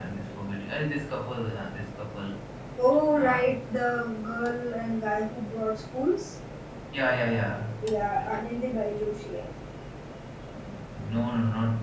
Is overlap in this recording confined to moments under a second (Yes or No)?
Yes